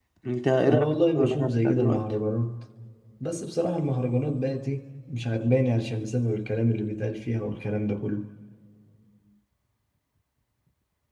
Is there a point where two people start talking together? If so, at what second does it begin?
0.6 s

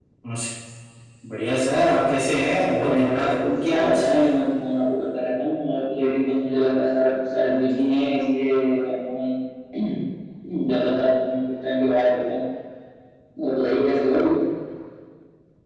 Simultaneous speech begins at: 2.6 s

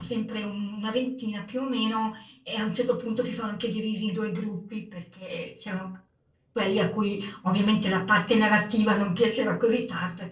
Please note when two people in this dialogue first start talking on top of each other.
none

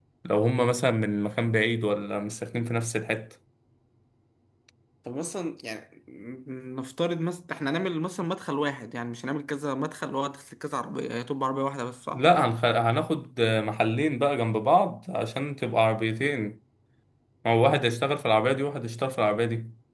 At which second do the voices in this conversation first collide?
none

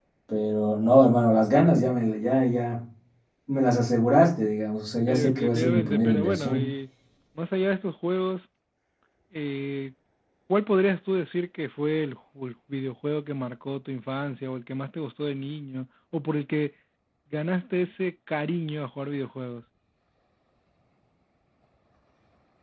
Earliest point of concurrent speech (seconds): 5.1 s

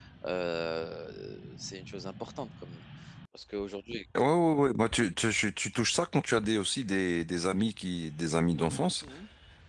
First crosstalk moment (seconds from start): none

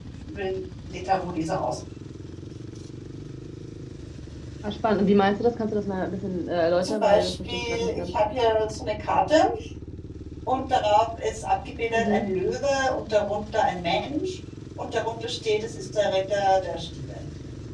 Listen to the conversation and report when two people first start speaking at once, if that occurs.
6.8 s

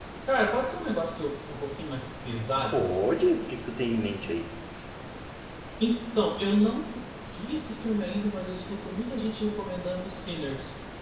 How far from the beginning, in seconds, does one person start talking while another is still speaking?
none

